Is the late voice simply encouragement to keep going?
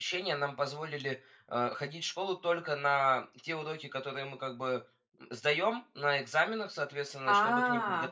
Yes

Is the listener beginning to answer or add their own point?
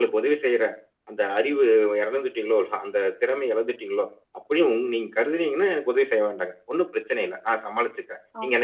No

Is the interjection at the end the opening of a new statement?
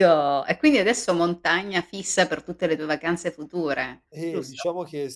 Yes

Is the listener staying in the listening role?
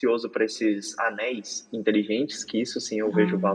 Yes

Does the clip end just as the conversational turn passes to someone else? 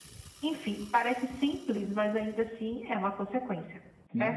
Yes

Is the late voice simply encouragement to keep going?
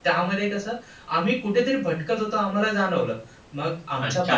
No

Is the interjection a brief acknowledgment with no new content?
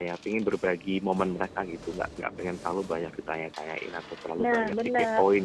Yes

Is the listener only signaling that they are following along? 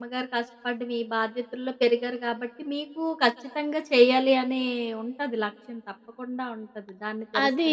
No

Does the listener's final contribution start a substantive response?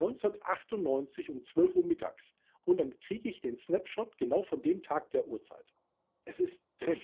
Yes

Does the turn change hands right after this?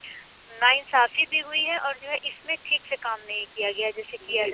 Yes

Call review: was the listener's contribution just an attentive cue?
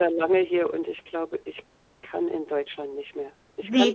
No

